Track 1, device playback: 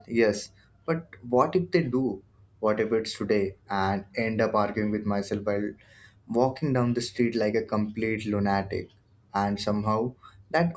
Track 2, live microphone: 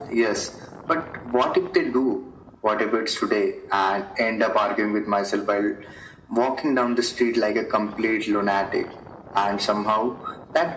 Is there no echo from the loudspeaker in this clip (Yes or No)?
No